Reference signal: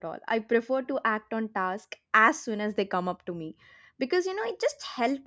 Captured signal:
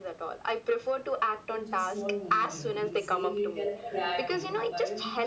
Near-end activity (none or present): present